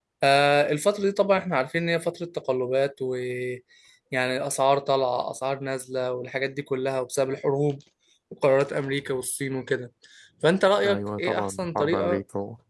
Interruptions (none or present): present